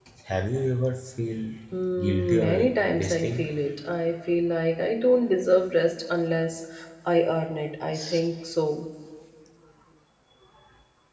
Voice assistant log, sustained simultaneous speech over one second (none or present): present